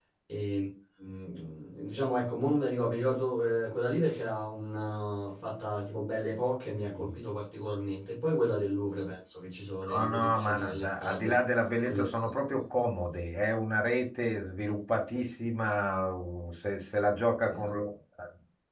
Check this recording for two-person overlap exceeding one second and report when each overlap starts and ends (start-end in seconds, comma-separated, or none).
9.9-11.4